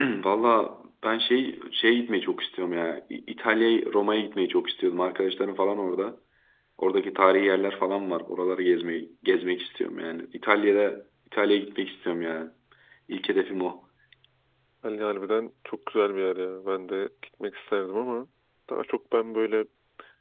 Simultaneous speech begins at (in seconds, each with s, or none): none